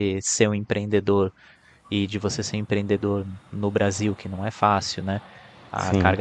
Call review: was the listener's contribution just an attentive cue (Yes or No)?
Yes